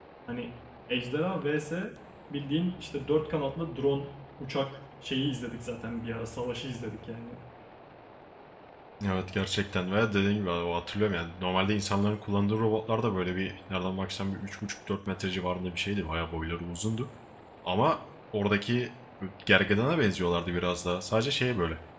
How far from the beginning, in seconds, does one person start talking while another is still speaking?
none

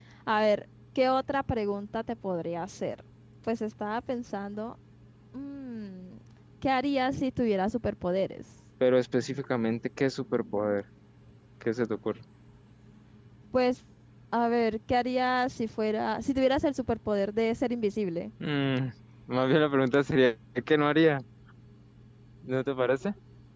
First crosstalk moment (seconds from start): none

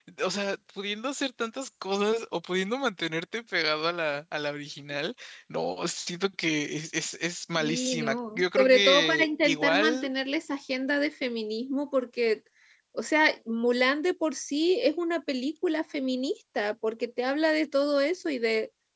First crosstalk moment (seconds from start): 7.5 s

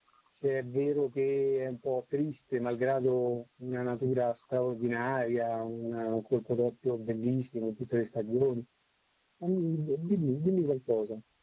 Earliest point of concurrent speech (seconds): none

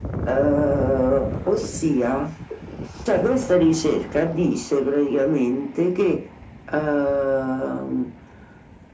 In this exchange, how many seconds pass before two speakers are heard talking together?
none

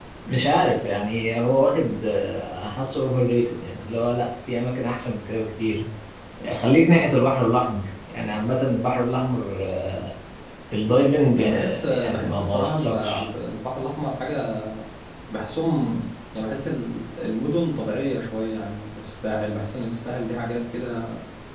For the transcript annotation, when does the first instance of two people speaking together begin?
11.4 s

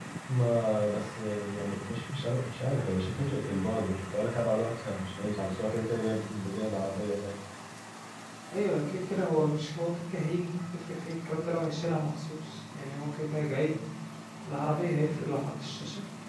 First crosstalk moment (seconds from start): none

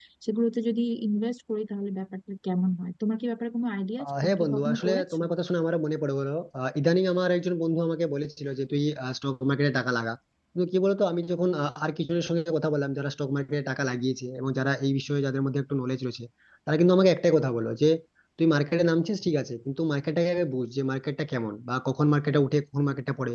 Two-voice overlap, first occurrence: 4.0 s

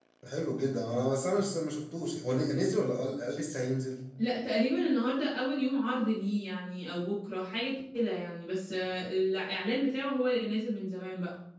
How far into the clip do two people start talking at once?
none

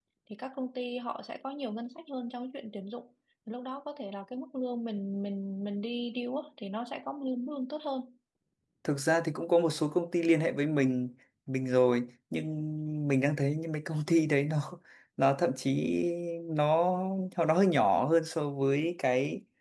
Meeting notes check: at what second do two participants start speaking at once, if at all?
none

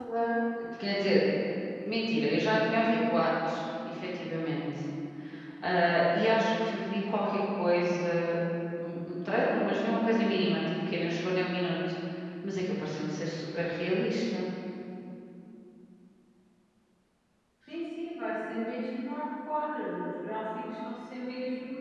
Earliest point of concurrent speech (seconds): none

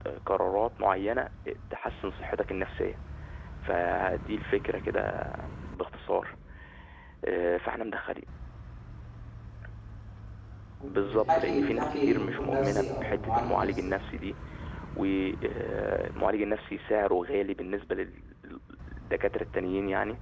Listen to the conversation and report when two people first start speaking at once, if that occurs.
11.0 s

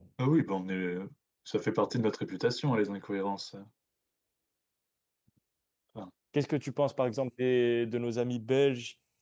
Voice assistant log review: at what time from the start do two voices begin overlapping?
none

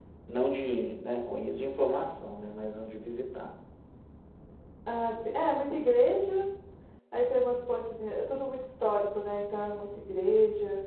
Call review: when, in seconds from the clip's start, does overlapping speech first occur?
none

